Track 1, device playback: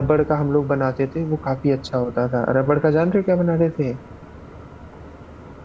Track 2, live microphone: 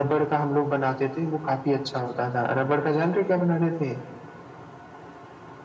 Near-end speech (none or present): none